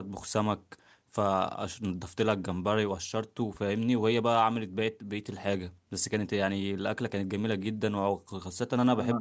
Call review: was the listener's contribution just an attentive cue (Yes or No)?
Yes